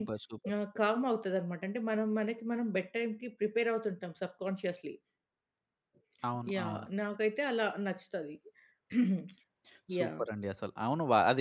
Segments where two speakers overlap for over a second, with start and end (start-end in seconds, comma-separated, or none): none